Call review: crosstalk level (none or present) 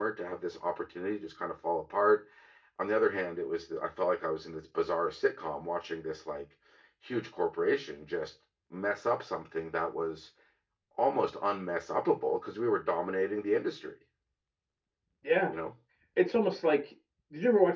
none